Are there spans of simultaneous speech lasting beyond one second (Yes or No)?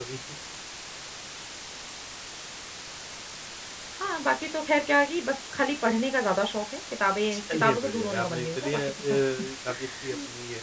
Yes